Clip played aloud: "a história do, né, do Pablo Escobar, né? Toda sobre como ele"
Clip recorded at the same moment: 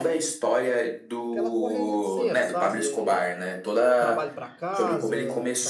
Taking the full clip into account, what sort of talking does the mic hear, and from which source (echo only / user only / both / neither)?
both